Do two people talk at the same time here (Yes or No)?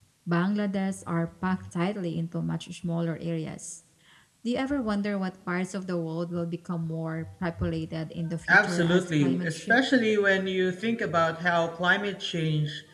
Yes